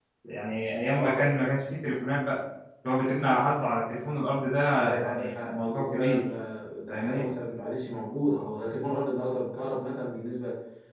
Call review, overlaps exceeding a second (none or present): present